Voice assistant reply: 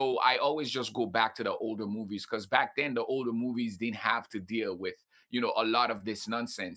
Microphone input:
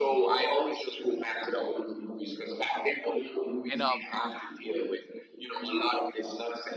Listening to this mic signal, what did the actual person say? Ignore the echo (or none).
and, um